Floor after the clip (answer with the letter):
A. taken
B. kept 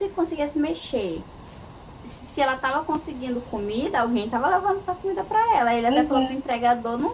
B